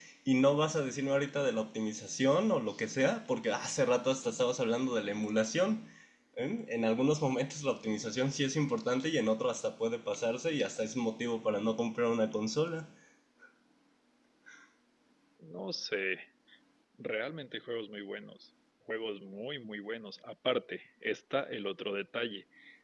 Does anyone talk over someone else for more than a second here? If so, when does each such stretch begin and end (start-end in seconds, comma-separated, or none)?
none